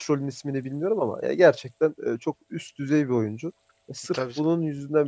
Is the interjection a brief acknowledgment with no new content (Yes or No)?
Yes